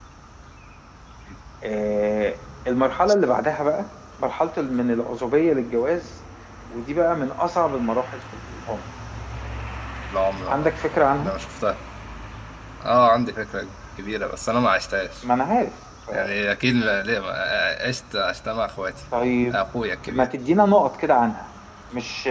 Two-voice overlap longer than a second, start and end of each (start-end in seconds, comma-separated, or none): none